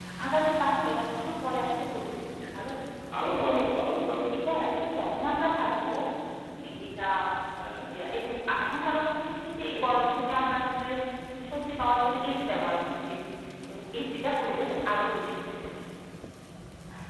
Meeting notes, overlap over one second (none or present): none